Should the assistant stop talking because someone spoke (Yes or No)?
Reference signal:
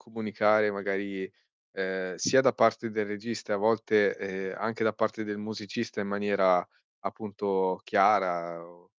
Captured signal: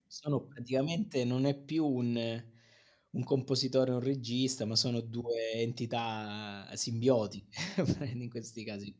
Yes